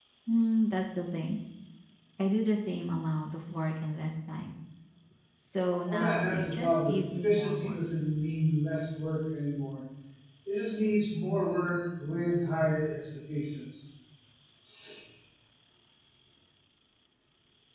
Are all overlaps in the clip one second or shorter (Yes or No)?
No